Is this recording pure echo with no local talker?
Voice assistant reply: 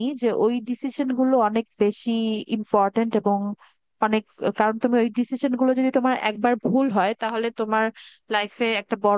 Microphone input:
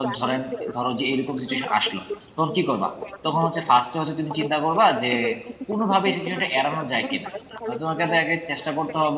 No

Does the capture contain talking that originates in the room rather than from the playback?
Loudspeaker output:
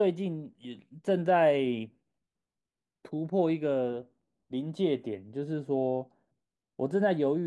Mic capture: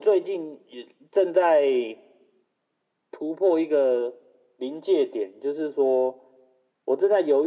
No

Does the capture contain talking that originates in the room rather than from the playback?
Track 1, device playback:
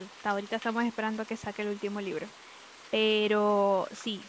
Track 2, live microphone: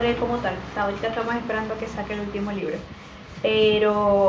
No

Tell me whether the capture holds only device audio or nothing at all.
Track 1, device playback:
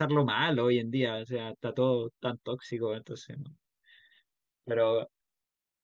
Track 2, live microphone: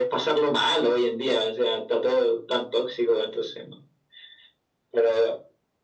Yes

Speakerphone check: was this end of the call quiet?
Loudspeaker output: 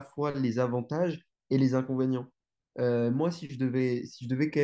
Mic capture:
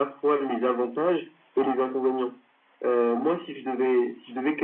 Yes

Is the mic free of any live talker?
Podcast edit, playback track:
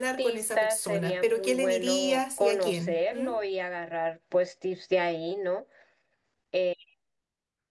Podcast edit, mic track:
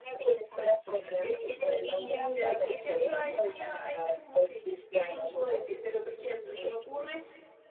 No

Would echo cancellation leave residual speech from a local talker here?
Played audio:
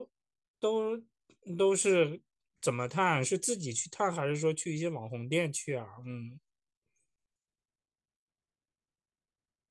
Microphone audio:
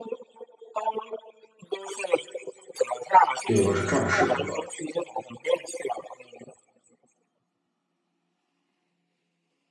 Yes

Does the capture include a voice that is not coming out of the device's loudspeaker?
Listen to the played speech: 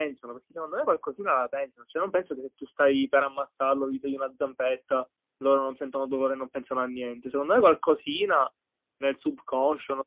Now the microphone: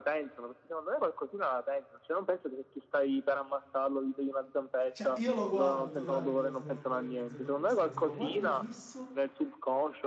Yes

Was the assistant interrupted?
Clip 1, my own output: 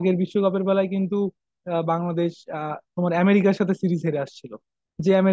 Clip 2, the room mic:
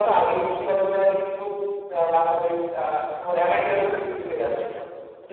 No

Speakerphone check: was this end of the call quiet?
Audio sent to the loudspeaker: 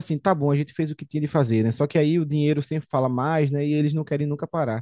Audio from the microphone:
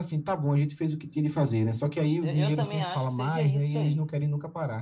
No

